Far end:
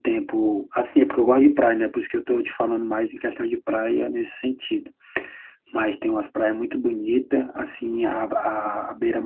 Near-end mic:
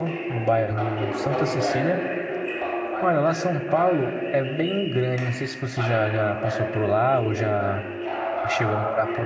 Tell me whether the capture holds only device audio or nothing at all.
No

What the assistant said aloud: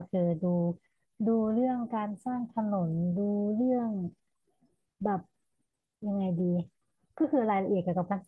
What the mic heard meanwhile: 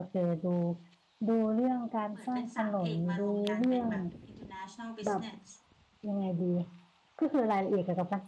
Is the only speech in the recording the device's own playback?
No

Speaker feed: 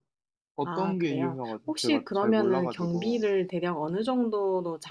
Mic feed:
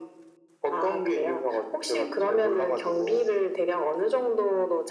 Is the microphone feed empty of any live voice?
Yes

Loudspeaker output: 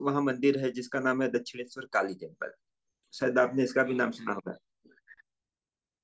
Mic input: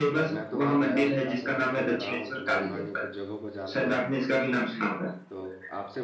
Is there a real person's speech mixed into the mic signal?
Yes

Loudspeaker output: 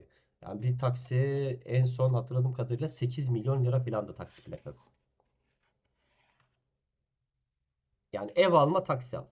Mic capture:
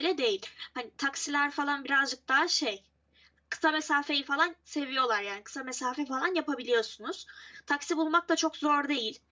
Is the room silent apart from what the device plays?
No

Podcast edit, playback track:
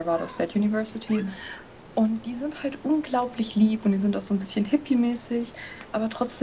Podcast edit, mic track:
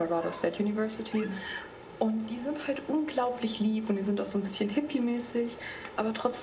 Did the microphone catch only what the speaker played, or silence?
Yes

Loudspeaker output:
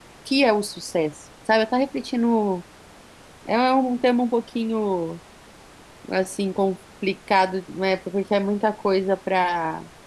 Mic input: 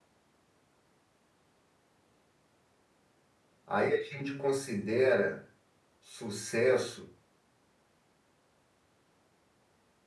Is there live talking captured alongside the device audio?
Yes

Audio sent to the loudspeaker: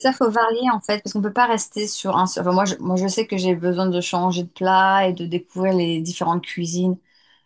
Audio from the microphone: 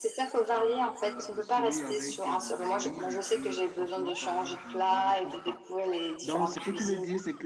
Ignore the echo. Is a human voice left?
Yes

